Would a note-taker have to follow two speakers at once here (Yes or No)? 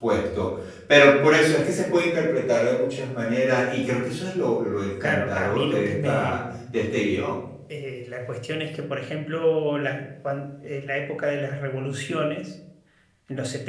Yes